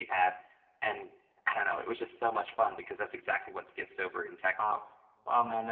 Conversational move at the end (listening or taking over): taking over